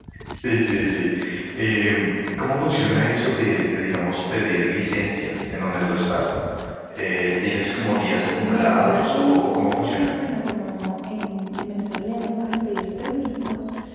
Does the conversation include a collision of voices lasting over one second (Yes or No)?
Yes